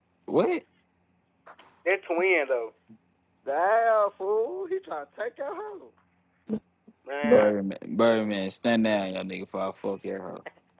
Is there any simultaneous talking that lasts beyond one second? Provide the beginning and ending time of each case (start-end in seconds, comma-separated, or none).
none